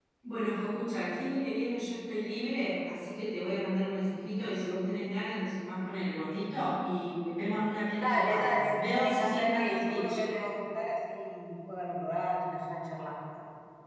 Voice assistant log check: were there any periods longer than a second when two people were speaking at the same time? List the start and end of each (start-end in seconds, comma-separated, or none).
8.0-10.2